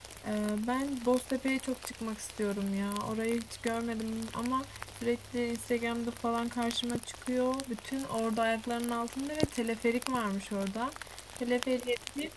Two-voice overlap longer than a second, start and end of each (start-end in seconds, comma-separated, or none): none